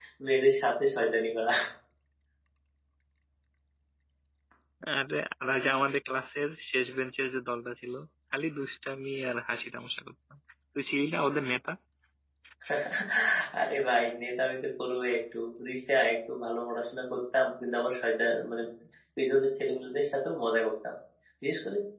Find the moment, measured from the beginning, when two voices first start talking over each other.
none

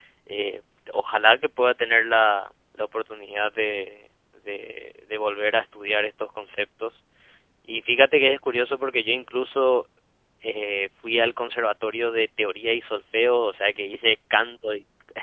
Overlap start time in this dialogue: none

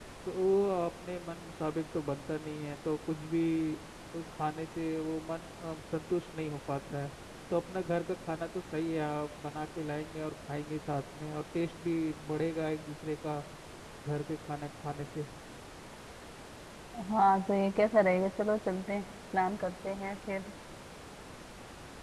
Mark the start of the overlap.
none

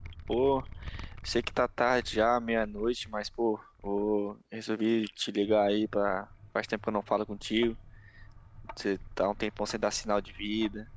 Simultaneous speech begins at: none

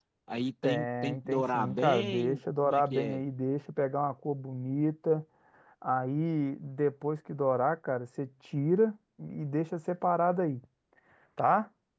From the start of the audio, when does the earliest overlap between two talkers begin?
0.6 s

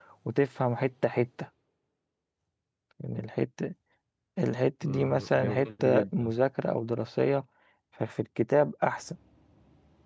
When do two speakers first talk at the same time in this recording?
4.8 s

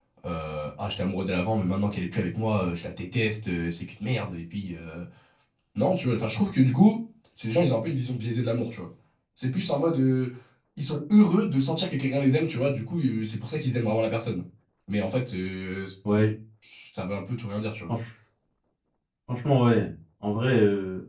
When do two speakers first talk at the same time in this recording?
none

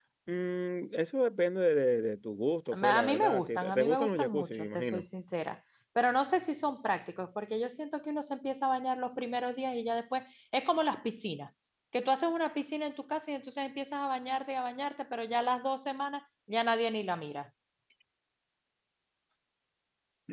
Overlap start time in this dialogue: 2.6 s

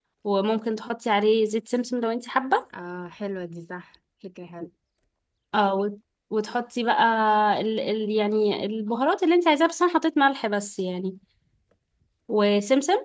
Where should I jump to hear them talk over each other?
none

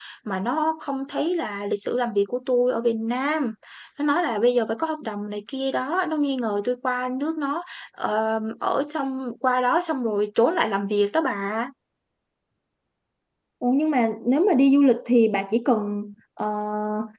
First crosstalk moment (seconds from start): none

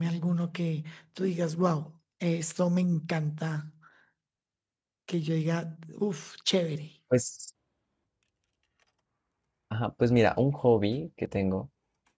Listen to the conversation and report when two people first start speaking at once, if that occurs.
none

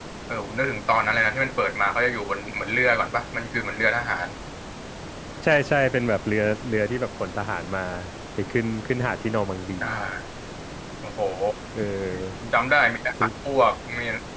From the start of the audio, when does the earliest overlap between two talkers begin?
none

